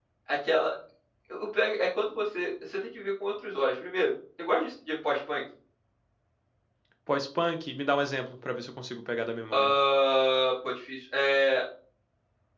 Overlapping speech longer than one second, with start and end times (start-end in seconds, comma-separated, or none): none